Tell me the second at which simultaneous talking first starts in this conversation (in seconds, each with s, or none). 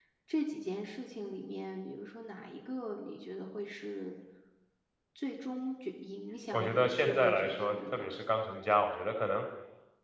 6.5 s